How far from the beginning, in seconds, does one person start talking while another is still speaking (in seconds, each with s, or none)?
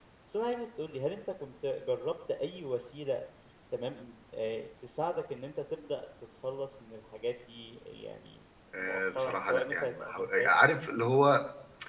8.7 s